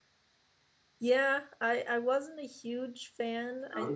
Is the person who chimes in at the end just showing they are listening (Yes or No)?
Yes